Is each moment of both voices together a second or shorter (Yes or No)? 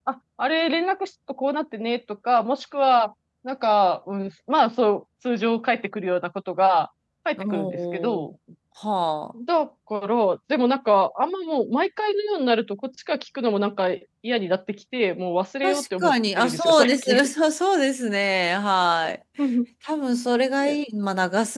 No